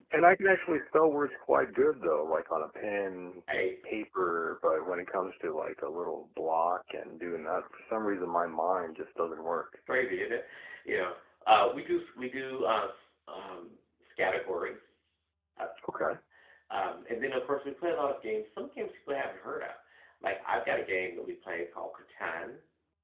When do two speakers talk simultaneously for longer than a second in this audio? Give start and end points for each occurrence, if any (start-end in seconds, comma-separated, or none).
none